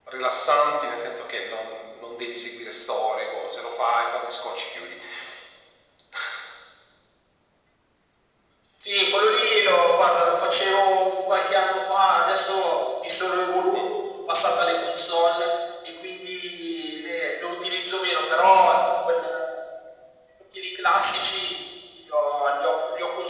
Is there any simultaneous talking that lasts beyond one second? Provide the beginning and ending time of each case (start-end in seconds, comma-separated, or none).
none